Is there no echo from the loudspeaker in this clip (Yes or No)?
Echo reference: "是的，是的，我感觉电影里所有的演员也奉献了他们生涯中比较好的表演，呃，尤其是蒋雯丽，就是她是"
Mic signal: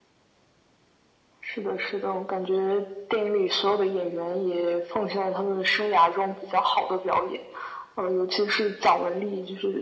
No